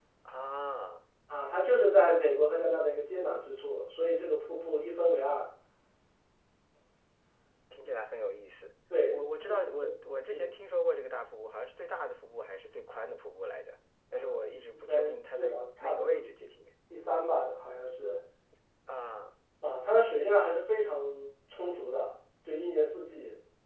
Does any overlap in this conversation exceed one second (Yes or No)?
Yes